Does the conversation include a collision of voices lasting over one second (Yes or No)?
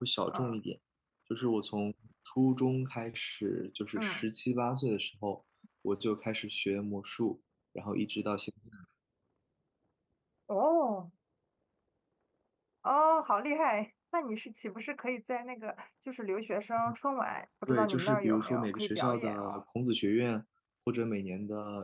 Yes